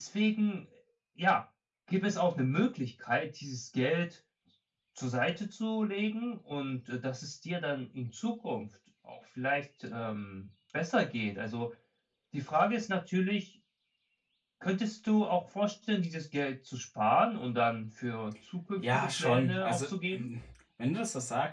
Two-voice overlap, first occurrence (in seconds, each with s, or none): 18.8 s